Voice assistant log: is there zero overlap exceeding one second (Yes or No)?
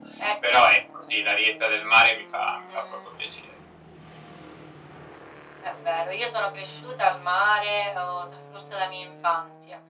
Yes